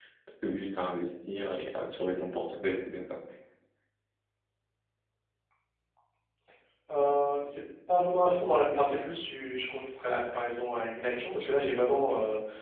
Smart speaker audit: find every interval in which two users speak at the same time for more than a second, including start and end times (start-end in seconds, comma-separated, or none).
none